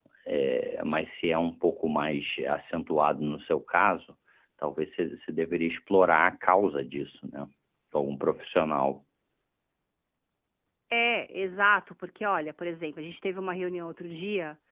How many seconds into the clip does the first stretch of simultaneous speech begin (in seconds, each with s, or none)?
none